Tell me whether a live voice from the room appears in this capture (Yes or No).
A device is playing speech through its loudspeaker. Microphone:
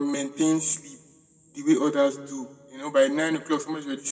No